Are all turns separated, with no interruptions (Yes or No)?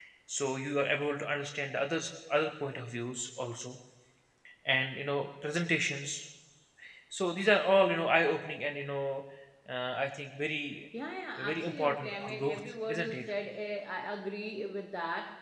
No